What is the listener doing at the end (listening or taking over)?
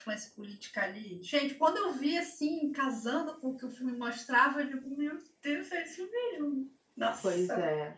taking over